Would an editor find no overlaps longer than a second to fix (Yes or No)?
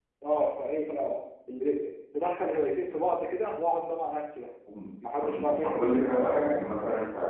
No